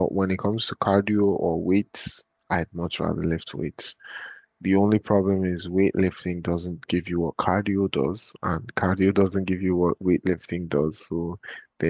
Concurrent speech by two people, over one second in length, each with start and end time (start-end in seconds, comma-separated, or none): none